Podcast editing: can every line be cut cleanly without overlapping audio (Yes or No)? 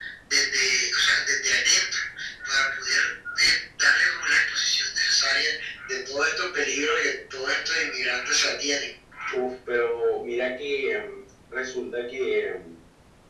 Yes